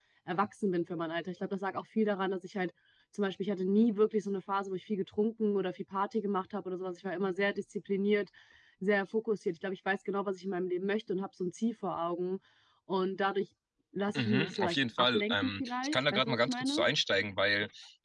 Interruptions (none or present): present